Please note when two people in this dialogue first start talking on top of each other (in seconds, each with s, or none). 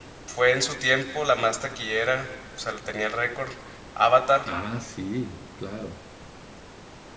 none